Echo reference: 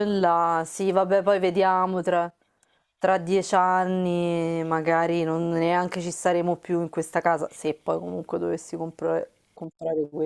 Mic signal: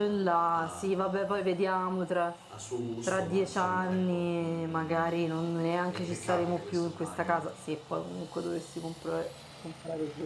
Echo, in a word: present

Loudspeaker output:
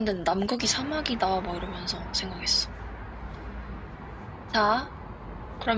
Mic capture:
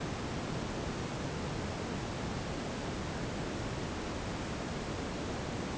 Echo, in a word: none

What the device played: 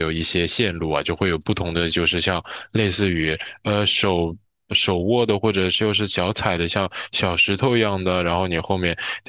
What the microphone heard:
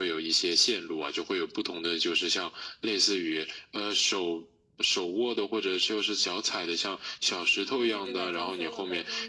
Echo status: present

